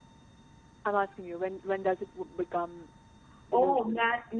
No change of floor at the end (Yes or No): No